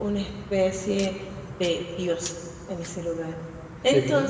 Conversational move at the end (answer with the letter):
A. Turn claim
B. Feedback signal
B